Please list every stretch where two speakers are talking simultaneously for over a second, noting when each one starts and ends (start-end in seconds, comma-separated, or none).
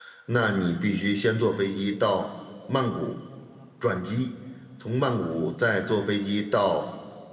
none